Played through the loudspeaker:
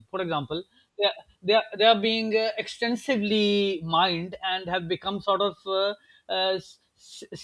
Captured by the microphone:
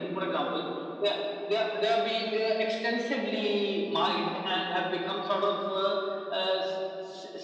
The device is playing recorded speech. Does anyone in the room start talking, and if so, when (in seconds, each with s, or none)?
none